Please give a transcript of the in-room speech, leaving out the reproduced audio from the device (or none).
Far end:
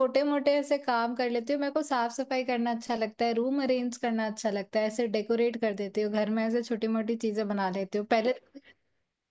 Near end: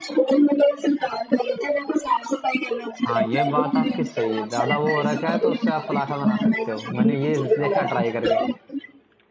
हाँ ये बात आपकी सही है ज्यादा वो हो रखा है तो उससे आप पराठा बना सकते हो मैंने ये देखा ट्राई करके